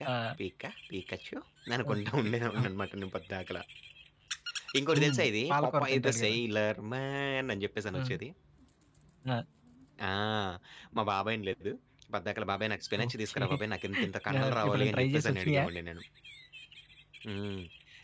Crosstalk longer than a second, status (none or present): present